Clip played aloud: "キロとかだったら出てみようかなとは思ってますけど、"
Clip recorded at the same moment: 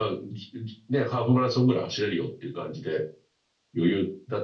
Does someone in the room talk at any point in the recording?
Yes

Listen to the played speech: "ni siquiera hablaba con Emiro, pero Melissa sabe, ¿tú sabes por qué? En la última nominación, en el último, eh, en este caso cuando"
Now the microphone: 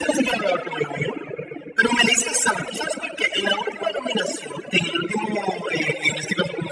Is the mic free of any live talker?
Yes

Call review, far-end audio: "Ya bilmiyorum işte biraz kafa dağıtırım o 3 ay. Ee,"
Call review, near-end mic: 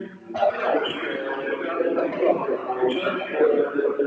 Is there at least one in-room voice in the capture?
No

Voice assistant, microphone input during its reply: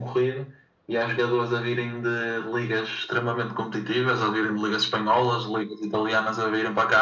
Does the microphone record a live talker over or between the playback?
No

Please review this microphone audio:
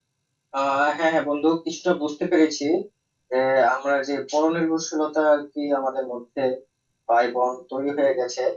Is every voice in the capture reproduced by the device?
No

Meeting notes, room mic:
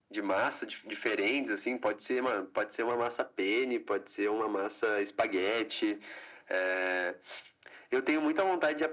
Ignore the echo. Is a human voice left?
No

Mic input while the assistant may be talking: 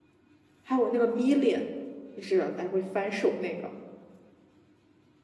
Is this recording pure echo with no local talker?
No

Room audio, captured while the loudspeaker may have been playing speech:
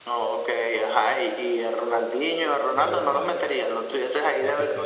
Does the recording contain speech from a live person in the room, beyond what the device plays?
Yes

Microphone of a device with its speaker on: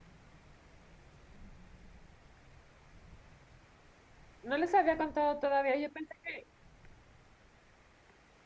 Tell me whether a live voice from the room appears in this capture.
Yes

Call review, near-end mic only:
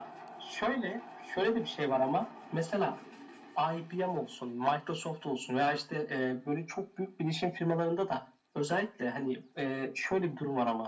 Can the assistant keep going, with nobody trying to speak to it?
Yes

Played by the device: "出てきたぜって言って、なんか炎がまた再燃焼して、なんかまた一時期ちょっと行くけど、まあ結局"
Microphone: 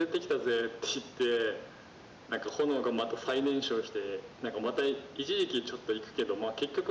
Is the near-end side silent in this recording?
Yes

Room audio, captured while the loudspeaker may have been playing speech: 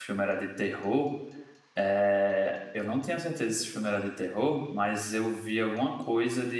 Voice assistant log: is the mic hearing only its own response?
No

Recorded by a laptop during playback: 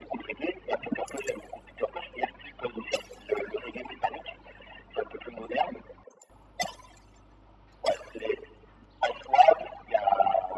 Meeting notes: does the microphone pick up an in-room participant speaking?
No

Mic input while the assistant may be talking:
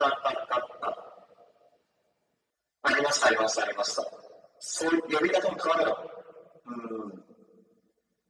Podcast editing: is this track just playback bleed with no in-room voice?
Yes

